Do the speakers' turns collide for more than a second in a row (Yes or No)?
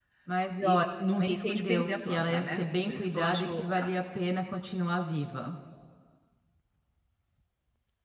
Yes